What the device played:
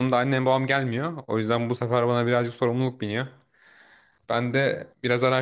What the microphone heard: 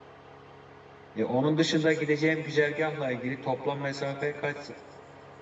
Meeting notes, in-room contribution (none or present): present